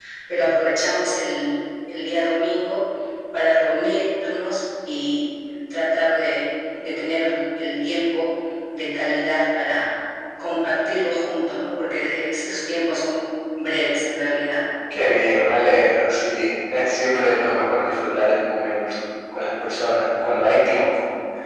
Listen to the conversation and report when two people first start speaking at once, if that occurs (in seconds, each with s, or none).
none